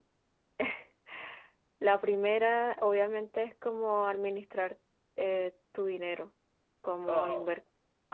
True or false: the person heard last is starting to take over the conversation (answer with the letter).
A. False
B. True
A